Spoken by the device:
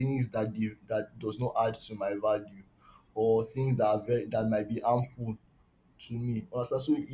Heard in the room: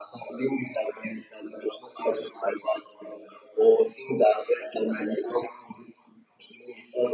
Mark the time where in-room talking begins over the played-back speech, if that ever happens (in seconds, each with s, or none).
none